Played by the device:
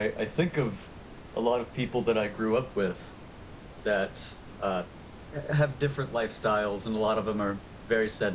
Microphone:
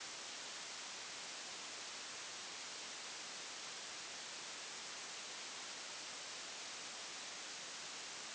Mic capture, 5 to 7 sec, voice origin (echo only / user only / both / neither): neither